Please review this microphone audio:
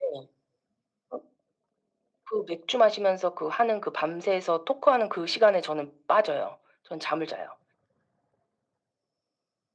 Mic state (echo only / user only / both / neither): echo only